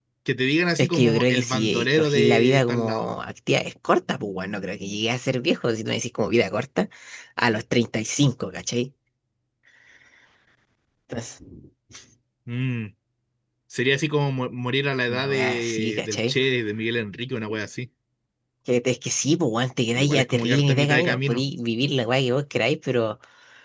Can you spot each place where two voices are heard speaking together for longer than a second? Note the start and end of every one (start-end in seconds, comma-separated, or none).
0.8-3.1, 15.1-16.4, 19.9-21.4